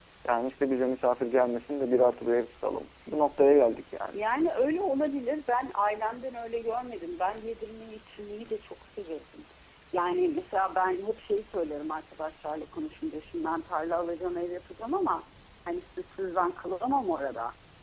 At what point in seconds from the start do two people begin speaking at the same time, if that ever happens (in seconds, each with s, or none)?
none